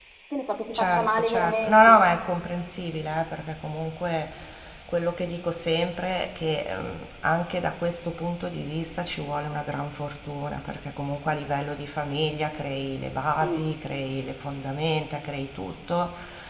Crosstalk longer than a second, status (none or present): present